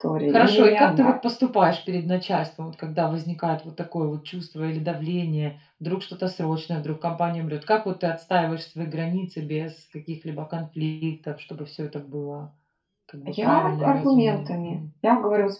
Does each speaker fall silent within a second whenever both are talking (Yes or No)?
No